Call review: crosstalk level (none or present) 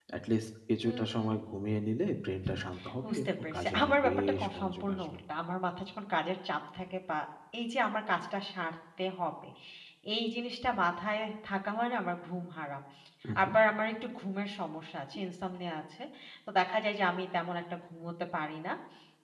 present